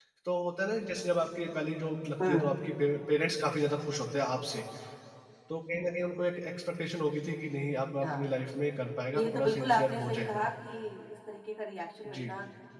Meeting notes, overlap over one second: present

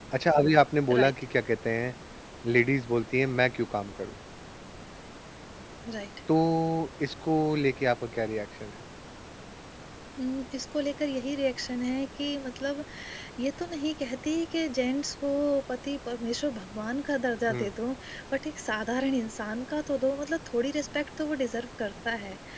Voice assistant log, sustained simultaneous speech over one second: none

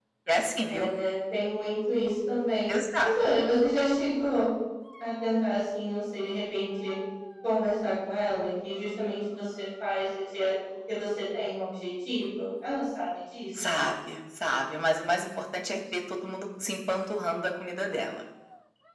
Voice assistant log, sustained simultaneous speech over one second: none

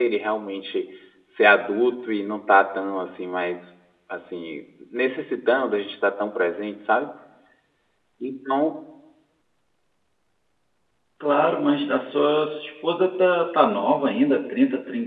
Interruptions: none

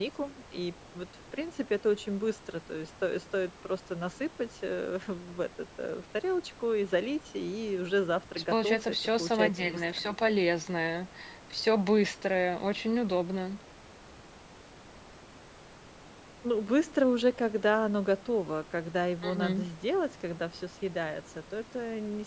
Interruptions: present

